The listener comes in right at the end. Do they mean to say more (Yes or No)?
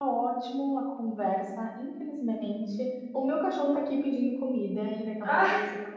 No